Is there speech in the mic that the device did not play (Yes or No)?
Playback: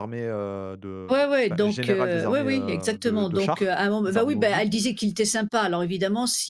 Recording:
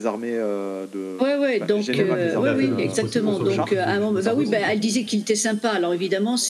Yes